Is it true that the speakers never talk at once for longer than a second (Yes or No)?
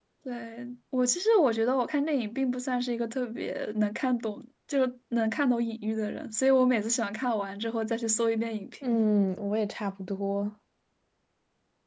Yes